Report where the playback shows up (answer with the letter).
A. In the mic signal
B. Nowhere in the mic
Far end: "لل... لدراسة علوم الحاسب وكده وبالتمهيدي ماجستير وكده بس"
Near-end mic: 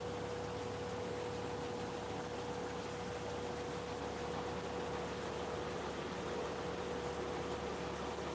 B